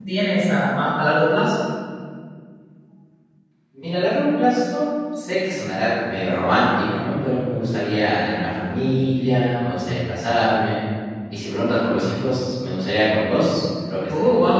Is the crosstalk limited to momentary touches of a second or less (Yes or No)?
Yes